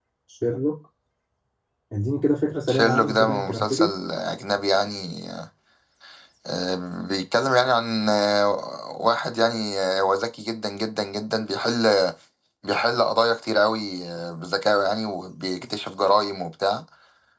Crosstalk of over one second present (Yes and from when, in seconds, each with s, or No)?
Yes, from 2.7 s